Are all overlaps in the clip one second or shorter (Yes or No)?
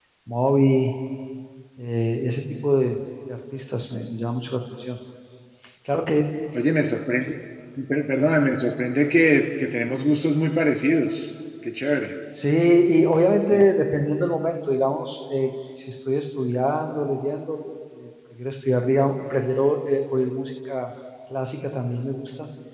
Yes